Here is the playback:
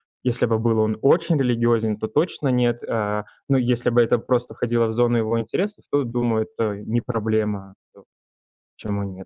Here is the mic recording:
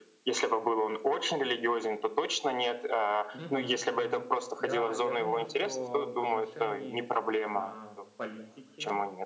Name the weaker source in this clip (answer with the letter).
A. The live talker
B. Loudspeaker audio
A